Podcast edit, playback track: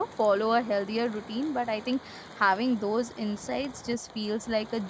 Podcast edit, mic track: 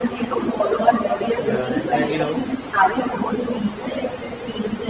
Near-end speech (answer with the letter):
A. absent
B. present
B